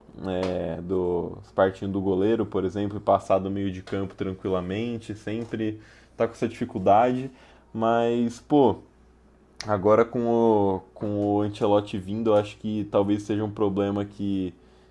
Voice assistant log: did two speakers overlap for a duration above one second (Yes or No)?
No